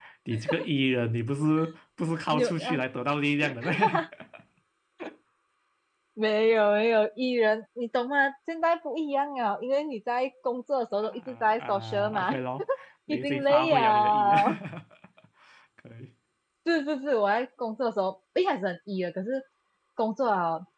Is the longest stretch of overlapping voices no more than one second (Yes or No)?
No